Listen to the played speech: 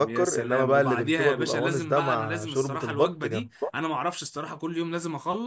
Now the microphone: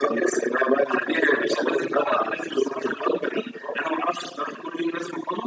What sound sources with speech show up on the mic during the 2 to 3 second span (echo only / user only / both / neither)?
echo only